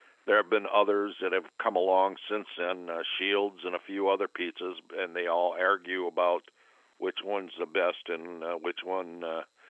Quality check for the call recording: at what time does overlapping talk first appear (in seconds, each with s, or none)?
none